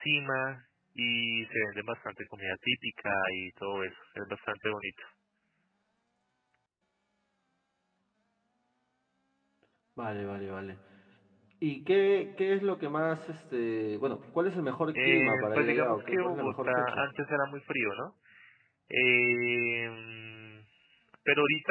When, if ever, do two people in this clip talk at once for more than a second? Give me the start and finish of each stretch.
15.0-17.0

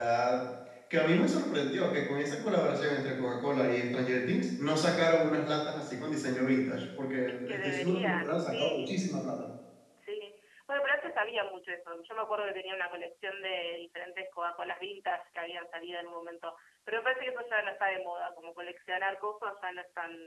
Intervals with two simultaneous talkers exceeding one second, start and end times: 7.3-9.0

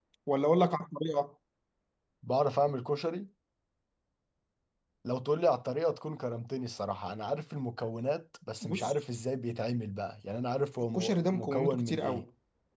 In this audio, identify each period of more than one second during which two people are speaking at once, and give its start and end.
10.9-12.2

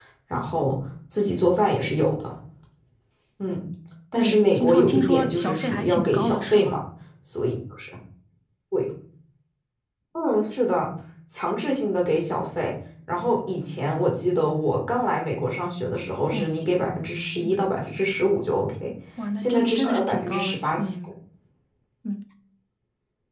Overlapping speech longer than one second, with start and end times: 4.2-6.8, 19.4-21.1

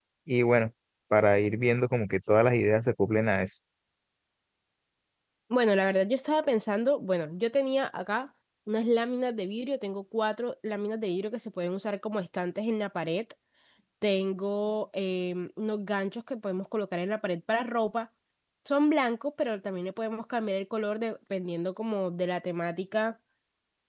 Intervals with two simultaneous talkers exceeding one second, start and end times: none

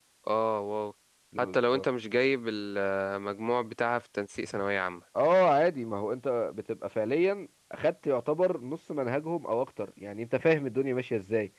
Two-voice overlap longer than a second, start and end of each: none

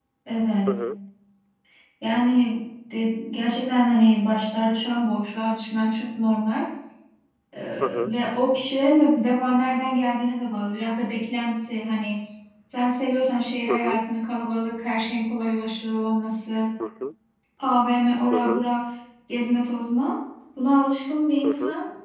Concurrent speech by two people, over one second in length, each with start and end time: none

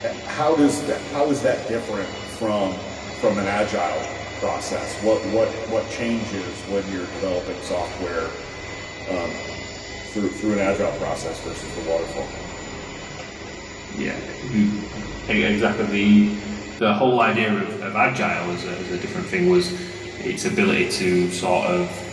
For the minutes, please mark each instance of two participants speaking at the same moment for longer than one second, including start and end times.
none

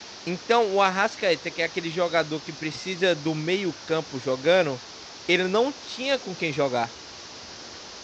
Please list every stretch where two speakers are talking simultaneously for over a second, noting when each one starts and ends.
none

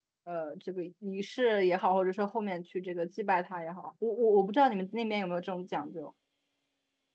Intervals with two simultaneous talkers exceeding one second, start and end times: none

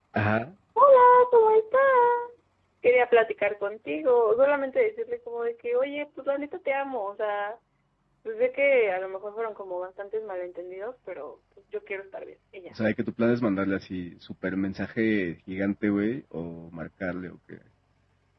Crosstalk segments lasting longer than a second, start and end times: none

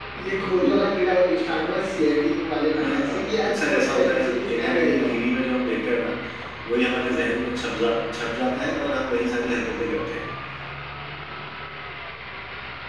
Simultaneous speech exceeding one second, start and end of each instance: 2.8-5.3

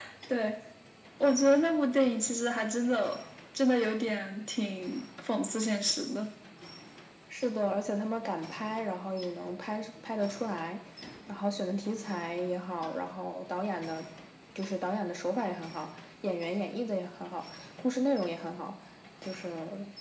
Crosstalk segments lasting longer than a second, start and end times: none

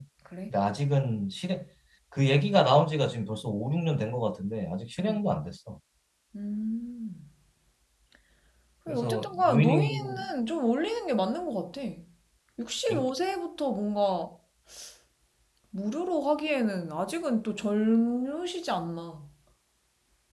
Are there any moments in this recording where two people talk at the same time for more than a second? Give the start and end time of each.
8.9-10.2

